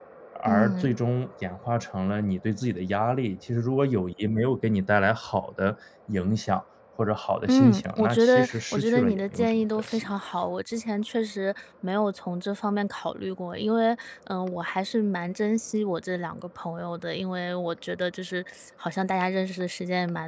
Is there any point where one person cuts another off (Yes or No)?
Yes